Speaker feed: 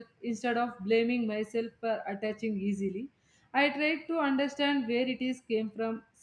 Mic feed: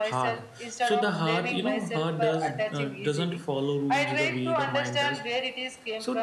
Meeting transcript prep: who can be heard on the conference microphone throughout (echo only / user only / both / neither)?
both